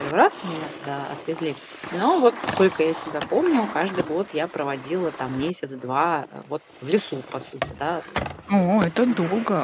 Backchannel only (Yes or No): No